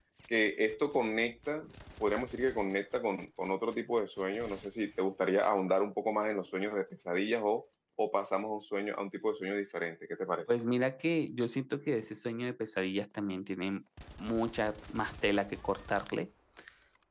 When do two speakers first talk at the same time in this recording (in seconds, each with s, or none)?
none